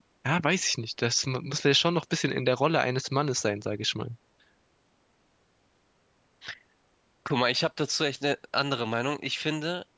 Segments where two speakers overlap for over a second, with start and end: none

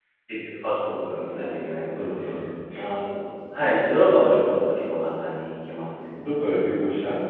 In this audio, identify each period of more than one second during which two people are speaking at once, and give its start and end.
none

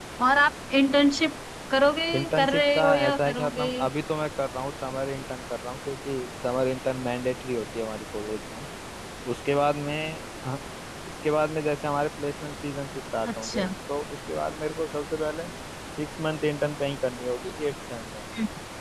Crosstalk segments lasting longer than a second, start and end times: 2.1-3.6

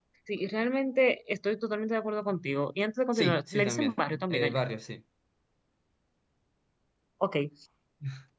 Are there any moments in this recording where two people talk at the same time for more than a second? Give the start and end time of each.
3.1-4.6

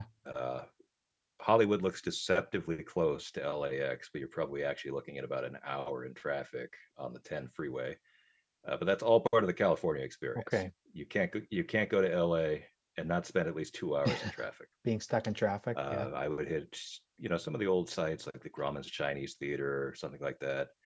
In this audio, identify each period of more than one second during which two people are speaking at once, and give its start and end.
none

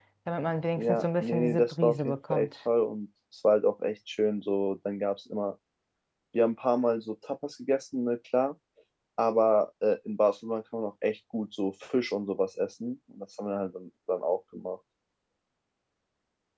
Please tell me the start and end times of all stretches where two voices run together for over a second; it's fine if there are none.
0.8-2.5

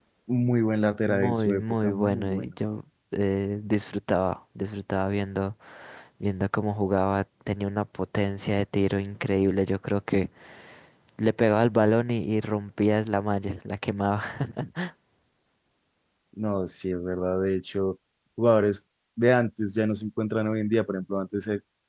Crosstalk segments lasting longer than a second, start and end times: 1.1-2.5

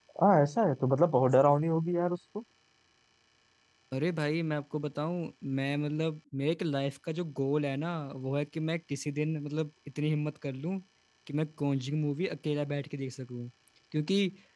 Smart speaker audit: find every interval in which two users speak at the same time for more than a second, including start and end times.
none

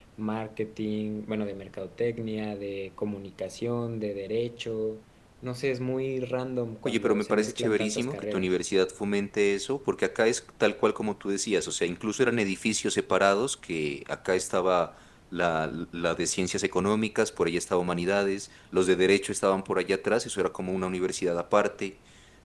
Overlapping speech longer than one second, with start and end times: 6.8-8.5

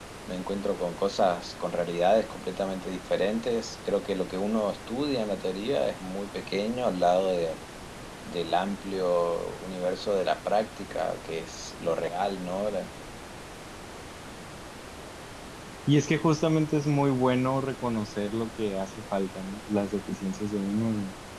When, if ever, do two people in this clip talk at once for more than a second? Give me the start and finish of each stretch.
none

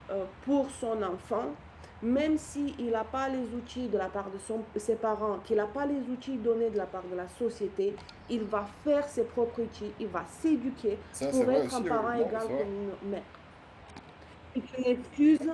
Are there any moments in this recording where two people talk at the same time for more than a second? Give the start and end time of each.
11.3-12.7

